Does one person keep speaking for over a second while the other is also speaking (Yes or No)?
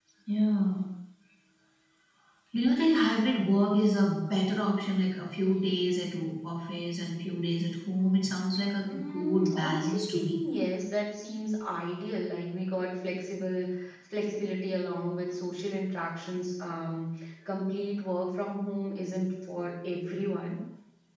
Yes